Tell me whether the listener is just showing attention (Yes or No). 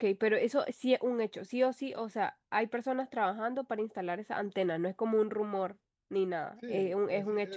No